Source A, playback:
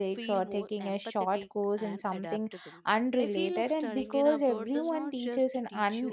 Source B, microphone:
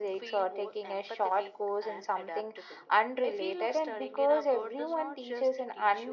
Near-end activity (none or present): none